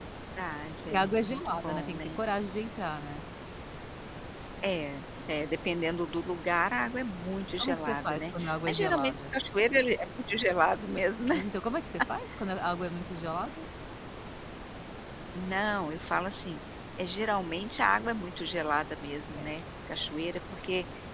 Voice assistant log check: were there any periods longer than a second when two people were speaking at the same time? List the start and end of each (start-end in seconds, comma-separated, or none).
0.8-2.2, 7.6-9.1